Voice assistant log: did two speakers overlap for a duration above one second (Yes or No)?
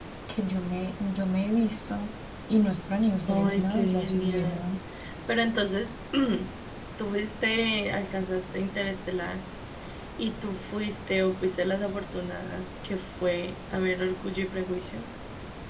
Yes